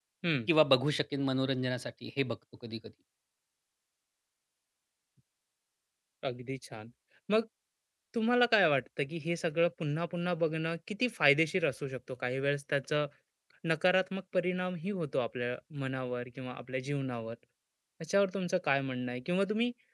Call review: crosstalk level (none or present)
none